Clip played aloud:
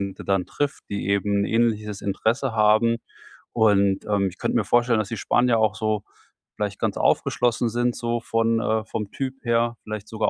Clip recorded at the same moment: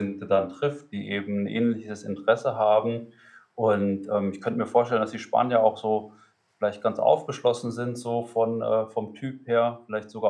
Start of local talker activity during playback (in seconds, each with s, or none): none